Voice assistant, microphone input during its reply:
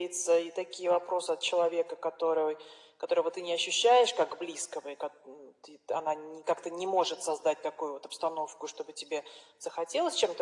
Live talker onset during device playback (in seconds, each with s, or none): none